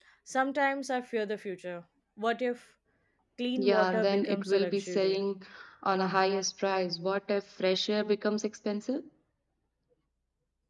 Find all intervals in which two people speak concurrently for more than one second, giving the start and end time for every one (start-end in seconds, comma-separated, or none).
3.6-5.2